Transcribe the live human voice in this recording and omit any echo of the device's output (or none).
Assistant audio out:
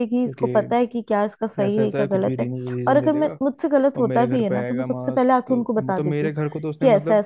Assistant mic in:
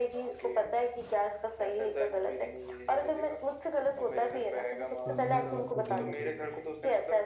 तो हम ना रात को गेम खेलते हैं